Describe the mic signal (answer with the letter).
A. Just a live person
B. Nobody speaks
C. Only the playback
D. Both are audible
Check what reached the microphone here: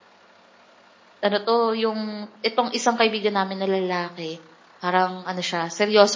A